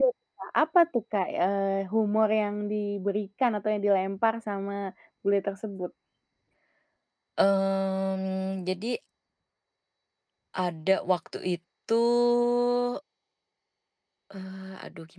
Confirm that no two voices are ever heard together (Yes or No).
Yes